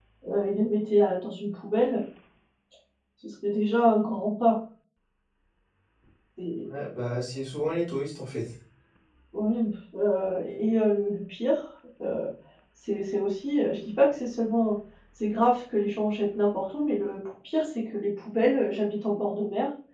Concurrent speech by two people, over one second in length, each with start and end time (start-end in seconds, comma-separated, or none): none